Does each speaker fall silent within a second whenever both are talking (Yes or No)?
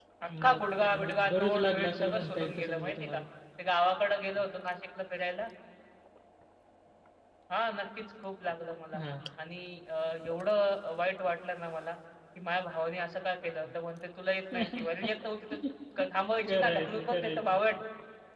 No